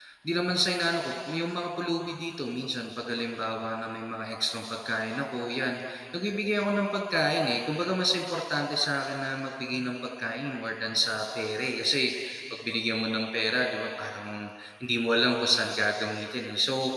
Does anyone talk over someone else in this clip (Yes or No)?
No